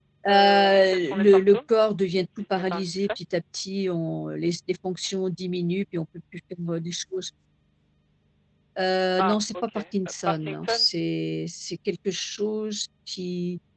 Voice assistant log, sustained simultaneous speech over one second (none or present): present